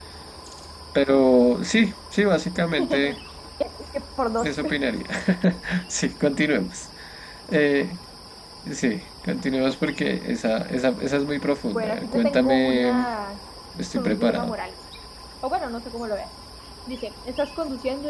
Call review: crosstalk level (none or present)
present